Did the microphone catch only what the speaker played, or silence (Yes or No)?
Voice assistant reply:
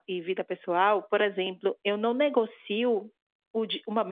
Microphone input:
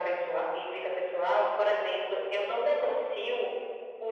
Yes